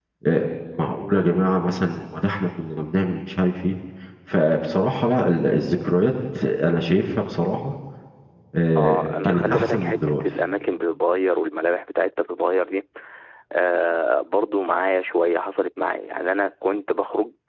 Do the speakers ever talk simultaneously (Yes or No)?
Yes